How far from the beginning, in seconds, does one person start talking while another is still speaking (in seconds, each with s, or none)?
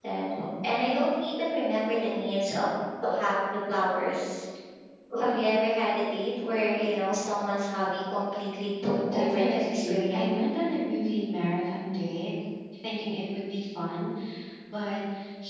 8.8 s